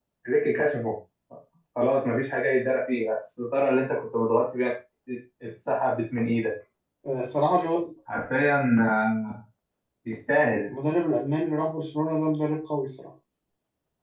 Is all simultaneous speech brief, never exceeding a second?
Yes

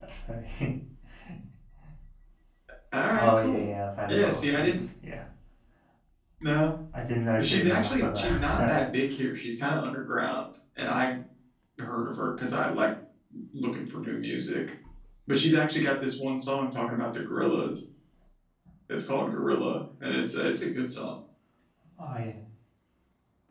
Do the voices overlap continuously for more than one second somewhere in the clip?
Yes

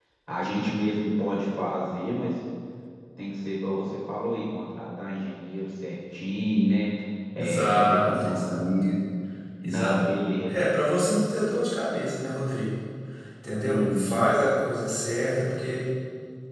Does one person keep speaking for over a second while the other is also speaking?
Yes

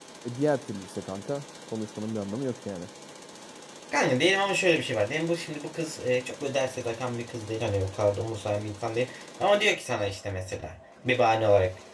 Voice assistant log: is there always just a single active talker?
Yes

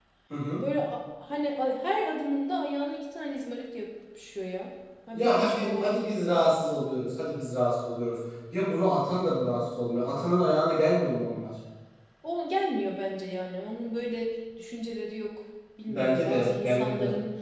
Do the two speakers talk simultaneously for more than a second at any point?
Yes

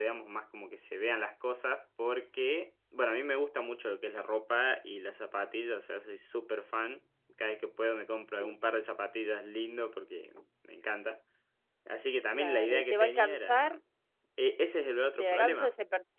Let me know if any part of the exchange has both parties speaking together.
Yes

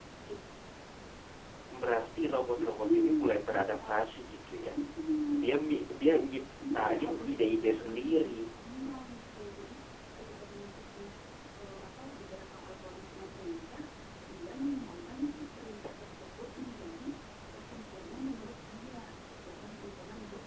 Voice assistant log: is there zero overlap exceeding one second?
No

